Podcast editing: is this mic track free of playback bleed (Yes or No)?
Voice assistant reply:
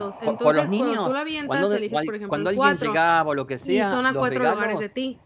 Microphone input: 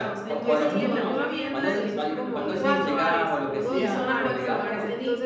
No